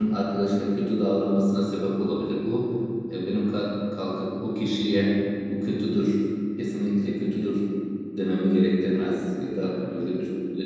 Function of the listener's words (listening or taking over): listening